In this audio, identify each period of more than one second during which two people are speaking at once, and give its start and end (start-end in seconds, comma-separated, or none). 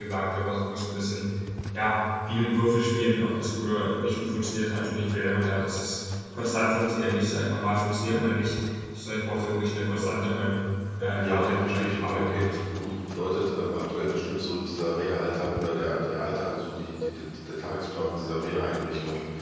11.2-12.8